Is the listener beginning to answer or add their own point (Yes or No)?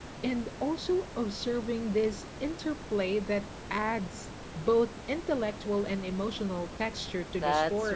Yes